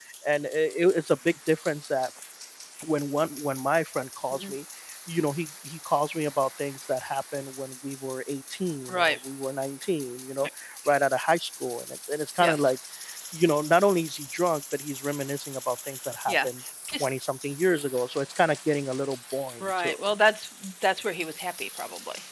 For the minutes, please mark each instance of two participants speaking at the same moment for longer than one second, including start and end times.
none

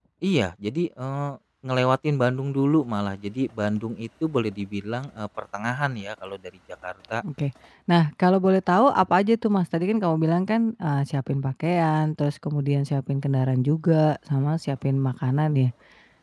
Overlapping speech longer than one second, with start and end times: none

